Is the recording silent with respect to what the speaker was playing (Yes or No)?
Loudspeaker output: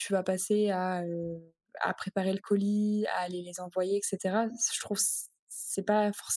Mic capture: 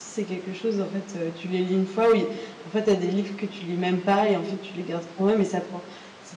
Yes